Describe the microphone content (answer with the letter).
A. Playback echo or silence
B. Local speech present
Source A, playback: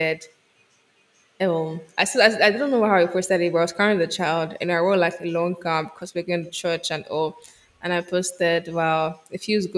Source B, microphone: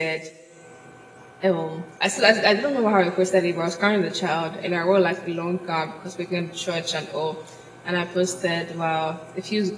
A